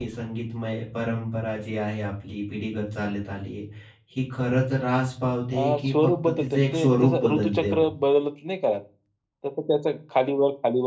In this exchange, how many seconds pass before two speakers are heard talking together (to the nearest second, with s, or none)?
6 s